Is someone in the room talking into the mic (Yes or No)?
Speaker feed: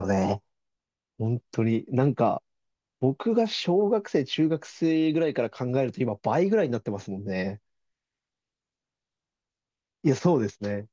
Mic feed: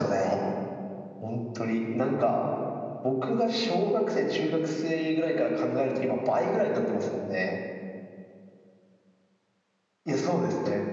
No